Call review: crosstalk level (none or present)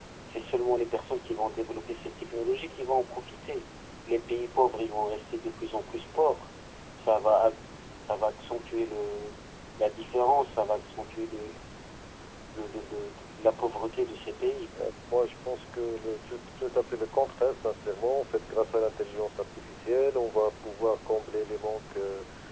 none